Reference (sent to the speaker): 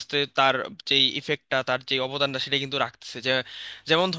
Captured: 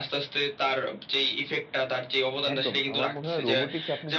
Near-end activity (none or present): present